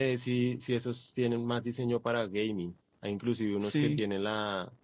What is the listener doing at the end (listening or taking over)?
listening